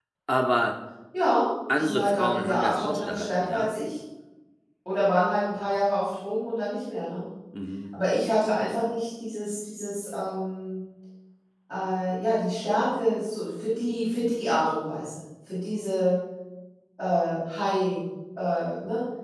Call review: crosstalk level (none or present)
present